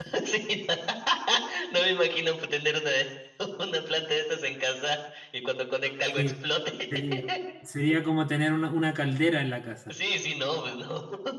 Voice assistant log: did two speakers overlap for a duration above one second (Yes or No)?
No